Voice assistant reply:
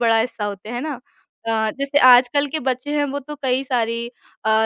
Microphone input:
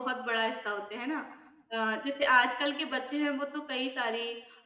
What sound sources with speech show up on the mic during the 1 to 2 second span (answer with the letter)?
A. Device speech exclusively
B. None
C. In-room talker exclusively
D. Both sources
A